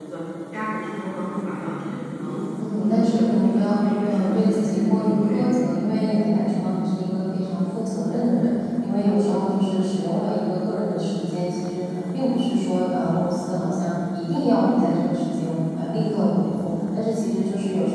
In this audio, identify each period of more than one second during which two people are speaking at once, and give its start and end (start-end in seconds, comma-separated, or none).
2.8-5.5